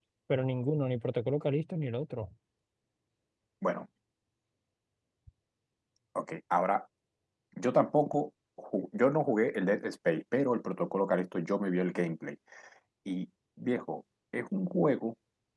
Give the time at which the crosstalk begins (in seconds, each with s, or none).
none